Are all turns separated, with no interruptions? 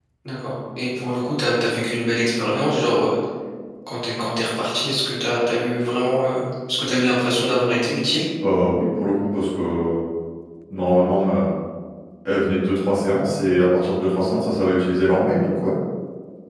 Yes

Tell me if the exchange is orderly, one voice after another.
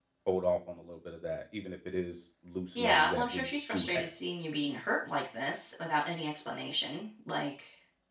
No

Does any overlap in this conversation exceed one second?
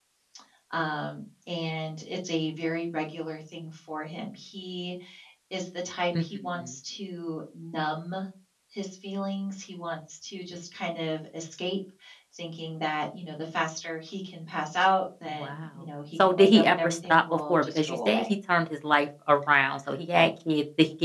Yes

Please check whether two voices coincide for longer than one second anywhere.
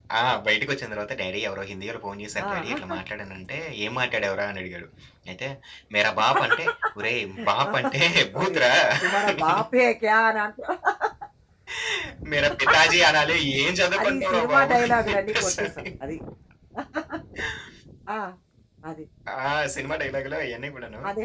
Yes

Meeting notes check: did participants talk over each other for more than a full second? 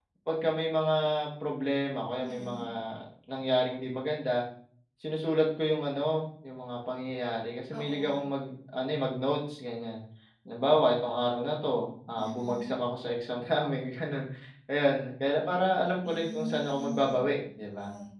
Yes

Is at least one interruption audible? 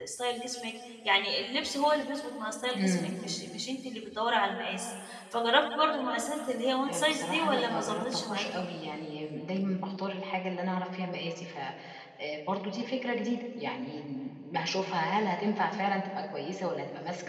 Yes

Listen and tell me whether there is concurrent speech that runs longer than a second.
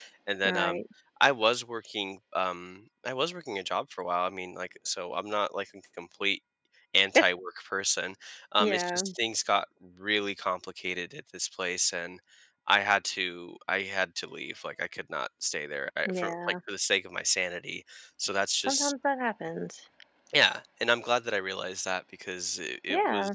No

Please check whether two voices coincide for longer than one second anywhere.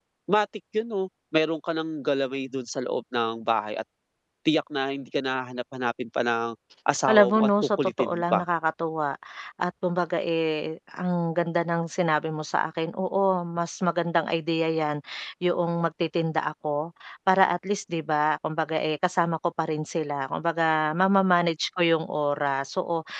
Yes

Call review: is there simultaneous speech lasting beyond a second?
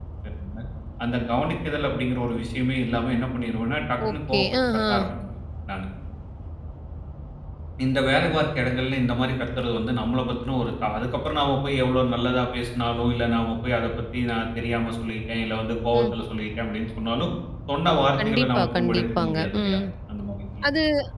Yes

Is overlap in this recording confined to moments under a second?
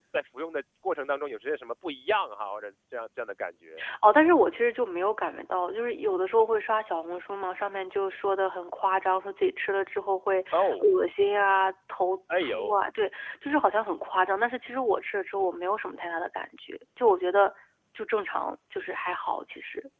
Yes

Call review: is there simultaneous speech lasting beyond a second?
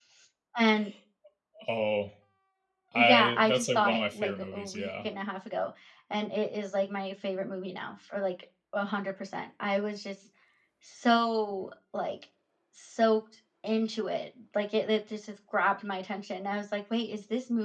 Yes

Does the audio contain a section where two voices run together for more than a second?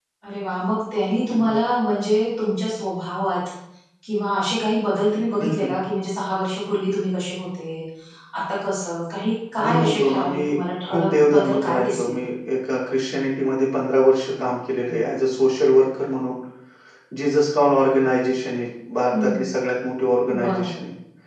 Yes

